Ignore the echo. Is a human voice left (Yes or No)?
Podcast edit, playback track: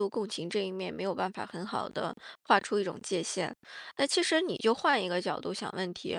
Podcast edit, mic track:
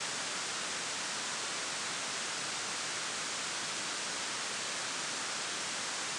No